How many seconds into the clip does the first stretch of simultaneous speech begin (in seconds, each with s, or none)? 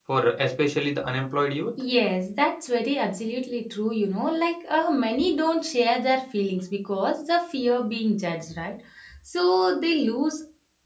none